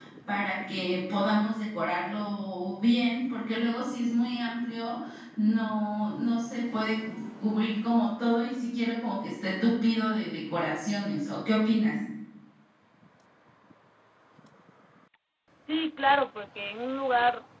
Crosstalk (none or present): none